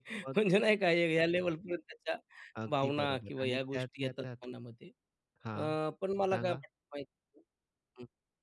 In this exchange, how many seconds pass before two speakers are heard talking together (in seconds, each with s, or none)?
2.7 s